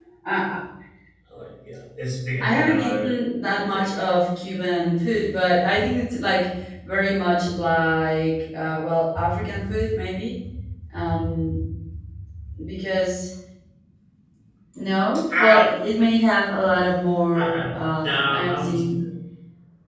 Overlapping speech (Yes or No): Yes